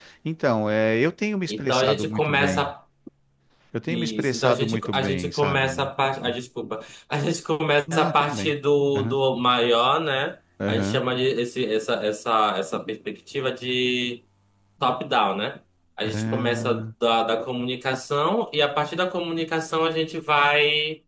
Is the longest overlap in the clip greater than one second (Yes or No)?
Yes